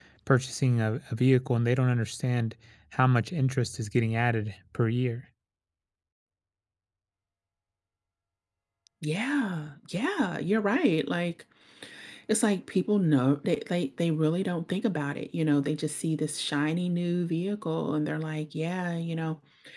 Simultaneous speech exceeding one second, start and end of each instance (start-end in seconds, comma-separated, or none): none